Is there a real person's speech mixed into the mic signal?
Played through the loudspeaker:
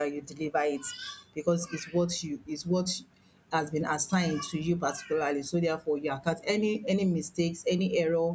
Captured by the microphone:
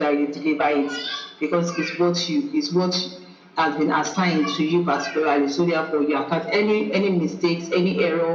No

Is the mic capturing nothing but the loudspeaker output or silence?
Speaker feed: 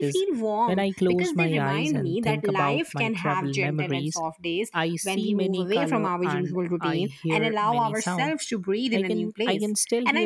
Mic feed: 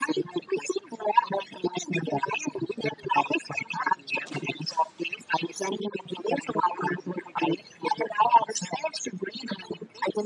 Yes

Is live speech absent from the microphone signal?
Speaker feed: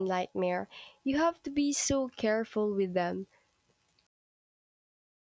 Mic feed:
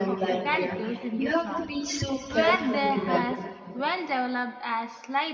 No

